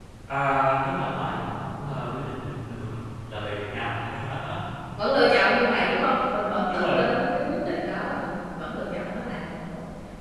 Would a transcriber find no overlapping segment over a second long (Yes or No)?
Yes